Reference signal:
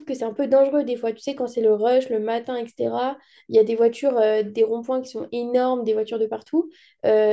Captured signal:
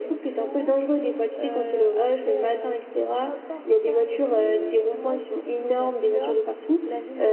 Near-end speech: present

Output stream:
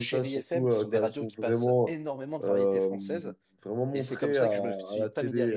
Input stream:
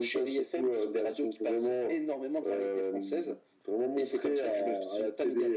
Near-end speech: none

